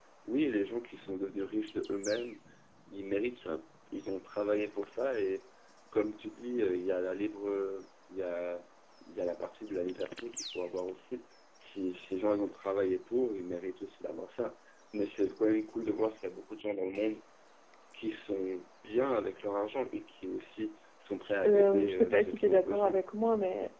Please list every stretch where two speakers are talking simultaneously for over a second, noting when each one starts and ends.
21.2-23.0

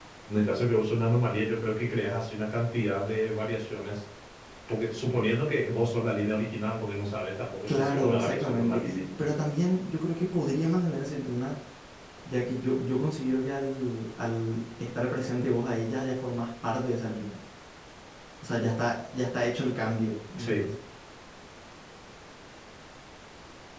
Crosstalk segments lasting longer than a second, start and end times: 7.6-9.0

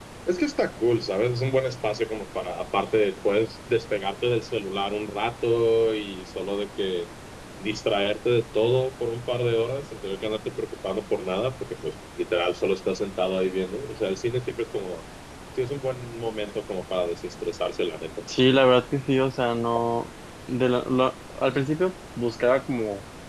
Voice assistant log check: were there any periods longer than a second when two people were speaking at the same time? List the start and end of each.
none

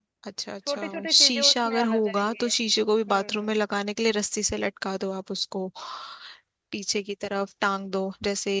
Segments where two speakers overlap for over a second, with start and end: 0.7-2.5

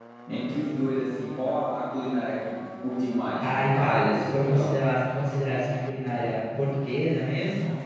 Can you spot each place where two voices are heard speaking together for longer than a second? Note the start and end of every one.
3.4-4.8

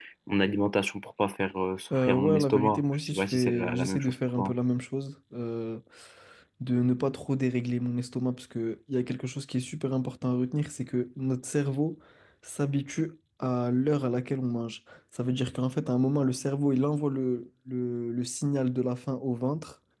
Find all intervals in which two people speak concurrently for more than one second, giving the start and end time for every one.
1.9-4.5

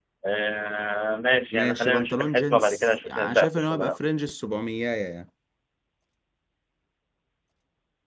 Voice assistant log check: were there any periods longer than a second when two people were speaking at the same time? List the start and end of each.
1.5-3.9

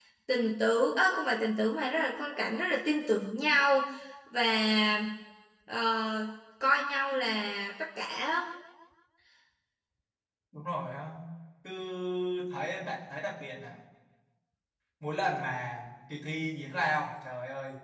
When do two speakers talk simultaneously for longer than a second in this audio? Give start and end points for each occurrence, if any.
none

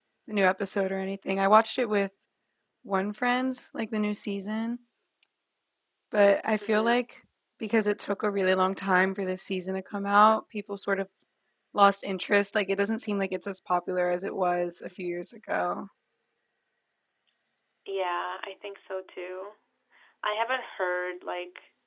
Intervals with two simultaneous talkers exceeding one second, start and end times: none

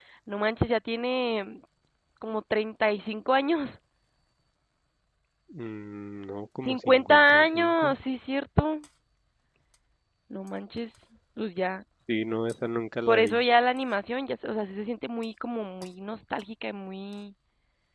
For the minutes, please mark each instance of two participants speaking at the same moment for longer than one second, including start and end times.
6.6-7.9

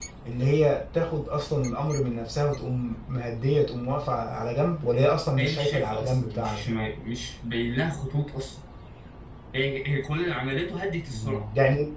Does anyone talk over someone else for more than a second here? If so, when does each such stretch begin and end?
5.4-6.8

